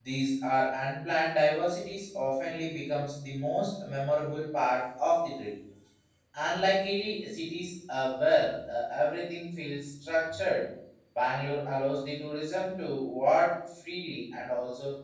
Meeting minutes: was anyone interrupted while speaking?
No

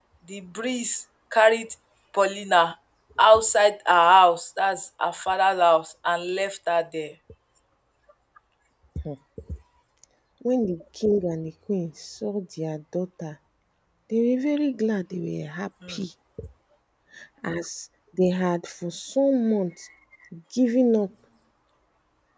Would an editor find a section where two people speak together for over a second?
No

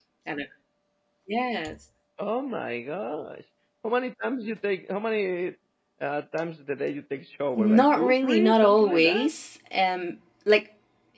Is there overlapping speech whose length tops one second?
Yes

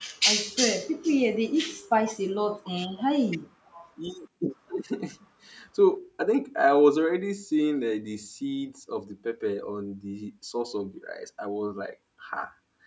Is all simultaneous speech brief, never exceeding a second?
Yes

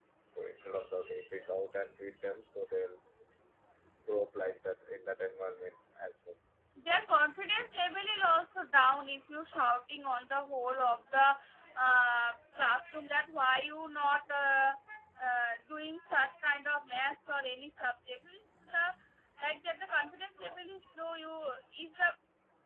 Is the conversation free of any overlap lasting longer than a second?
Yes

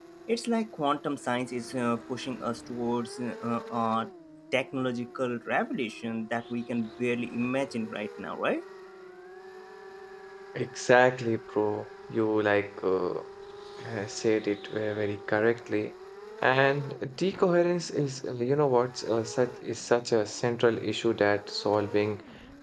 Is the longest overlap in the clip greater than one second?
No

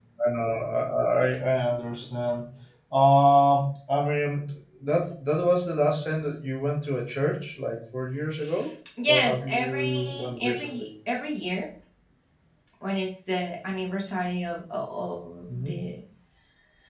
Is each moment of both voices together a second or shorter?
No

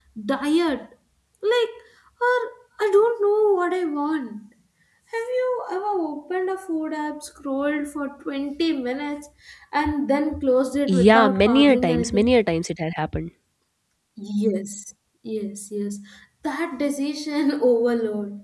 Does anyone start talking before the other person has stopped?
Yes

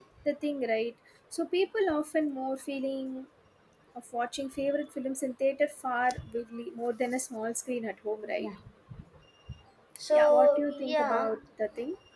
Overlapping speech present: Yes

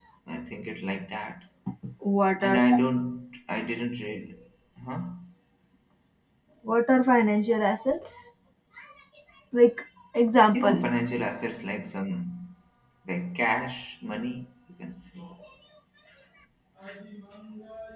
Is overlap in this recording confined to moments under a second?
Yes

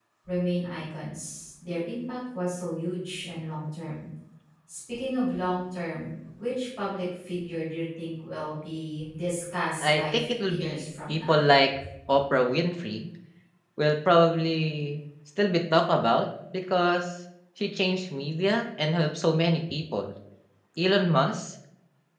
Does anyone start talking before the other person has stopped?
Yes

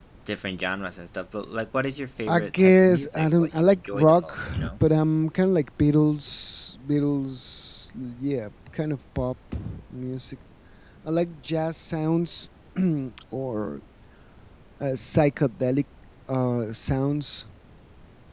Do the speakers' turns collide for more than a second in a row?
Yes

